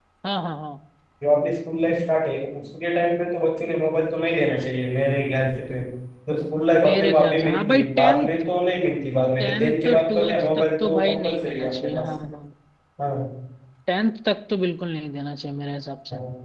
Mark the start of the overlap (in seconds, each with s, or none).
6.8 s